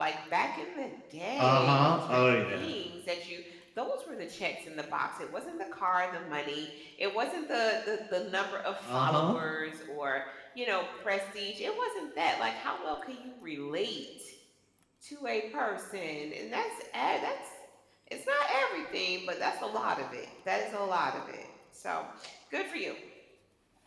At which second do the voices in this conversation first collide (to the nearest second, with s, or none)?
1 s